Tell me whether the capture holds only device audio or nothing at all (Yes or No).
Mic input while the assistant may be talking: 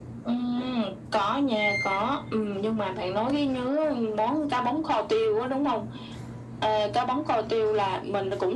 Yes